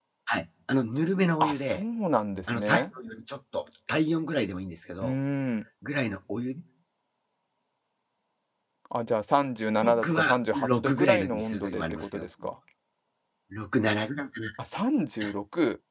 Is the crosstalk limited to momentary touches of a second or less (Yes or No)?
No